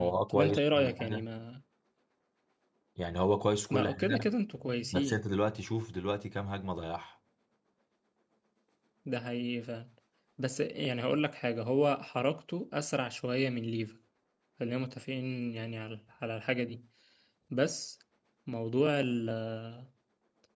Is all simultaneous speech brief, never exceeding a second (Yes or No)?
No